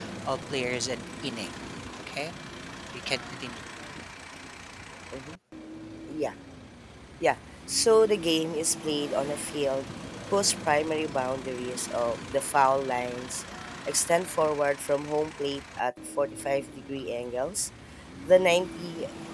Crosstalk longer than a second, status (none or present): none